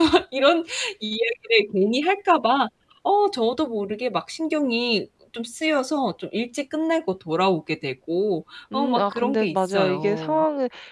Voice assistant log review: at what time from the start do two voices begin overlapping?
8.7 s

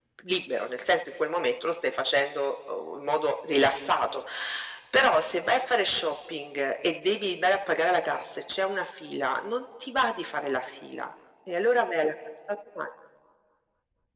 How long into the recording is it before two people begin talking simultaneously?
none

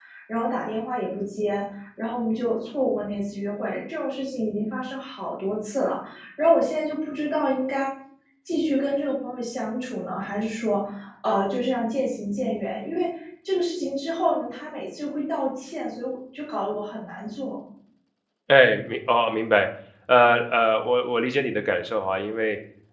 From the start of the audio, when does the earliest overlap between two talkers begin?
none

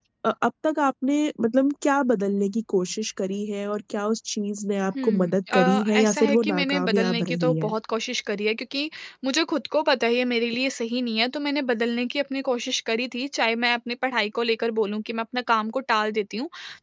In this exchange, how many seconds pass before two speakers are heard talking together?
5.0 s

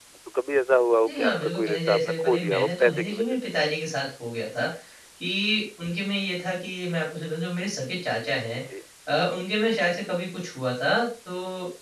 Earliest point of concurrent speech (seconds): 1.1 s

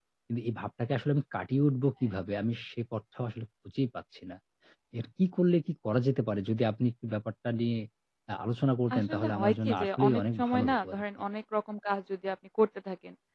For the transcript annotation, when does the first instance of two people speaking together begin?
9.0 s

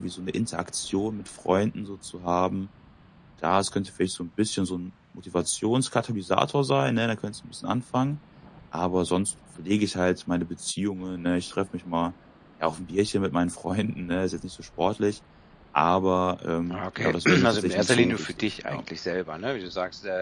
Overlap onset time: 16.7 s

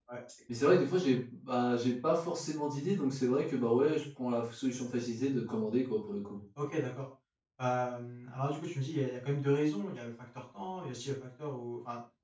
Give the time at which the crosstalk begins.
none

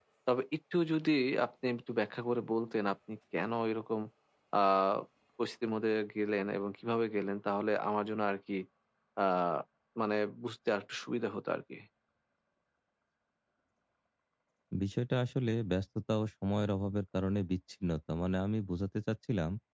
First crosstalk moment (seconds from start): none

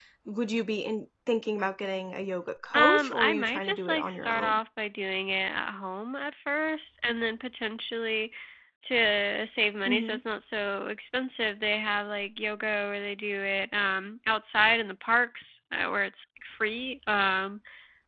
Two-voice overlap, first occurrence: 2.7 s

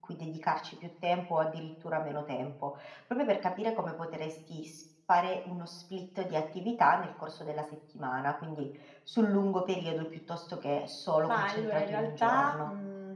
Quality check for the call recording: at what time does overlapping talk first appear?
11.3 s

